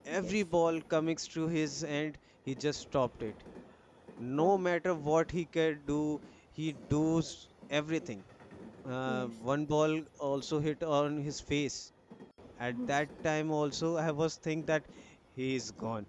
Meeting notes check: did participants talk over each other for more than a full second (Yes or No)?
No